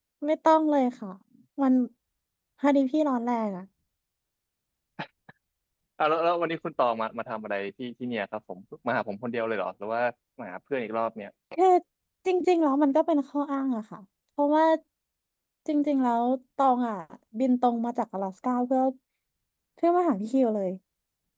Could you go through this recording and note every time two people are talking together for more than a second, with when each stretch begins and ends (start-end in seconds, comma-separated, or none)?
none